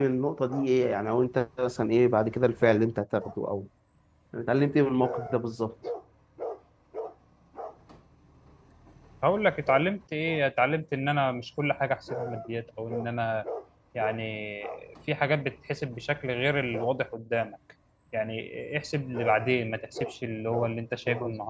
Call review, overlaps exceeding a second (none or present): none